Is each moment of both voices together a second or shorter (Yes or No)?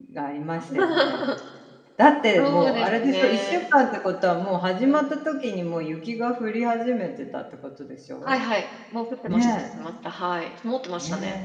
No